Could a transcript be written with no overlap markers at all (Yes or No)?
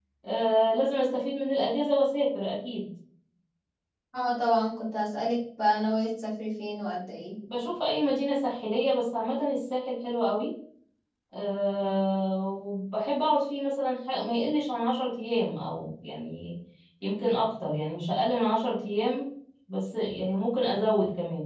Yes